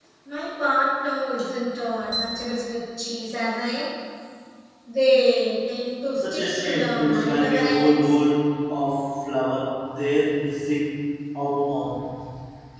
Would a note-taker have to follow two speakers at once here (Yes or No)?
Yes